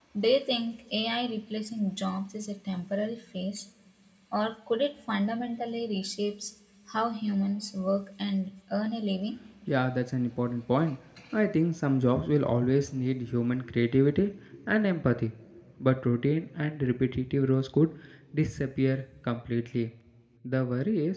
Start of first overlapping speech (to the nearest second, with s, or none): none